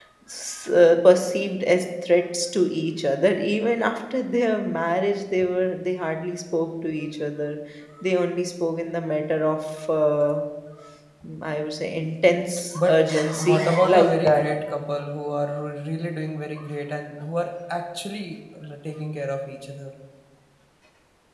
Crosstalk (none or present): present